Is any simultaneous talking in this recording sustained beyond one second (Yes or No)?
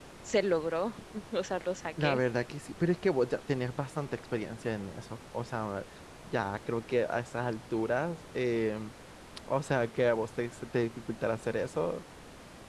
No